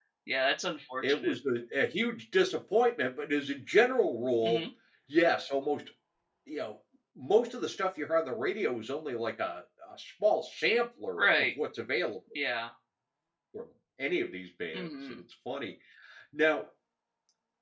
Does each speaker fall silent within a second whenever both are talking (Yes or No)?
Yes